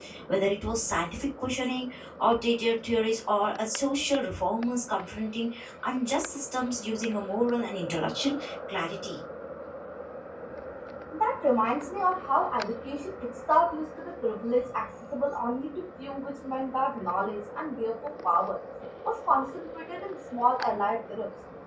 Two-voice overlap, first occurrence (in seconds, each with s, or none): none